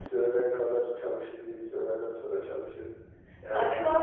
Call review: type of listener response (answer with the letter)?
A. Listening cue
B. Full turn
A